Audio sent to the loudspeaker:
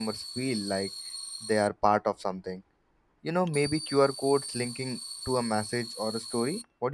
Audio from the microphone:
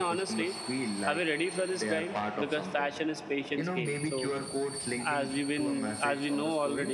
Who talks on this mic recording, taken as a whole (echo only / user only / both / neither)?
both